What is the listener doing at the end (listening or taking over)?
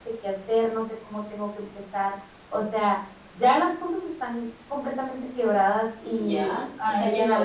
taking over